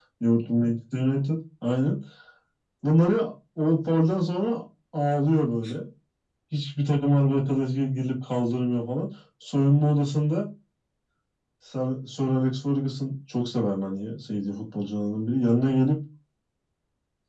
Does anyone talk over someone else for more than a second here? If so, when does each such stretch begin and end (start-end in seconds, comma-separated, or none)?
none